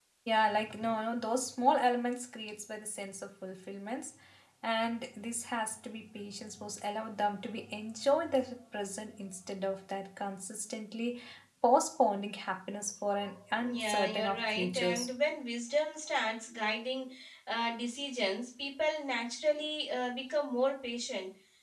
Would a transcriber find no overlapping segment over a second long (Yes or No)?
No